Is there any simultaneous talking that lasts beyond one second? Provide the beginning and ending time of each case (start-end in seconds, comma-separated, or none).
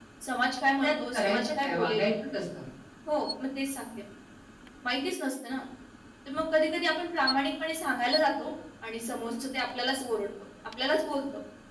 0.8-2.0